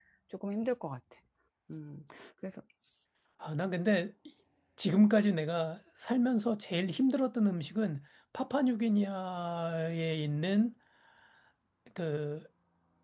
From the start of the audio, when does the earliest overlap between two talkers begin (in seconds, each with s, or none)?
none